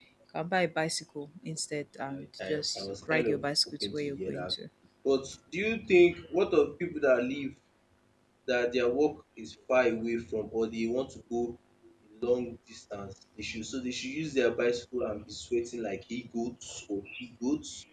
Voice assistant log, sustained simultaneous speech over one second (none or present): present